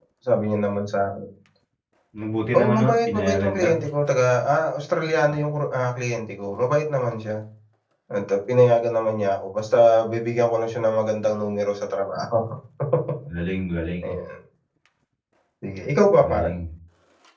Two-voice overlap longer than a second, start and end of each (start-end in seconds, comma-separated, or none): 2.5-3.8